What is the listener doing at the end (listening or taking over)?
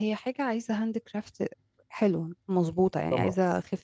listening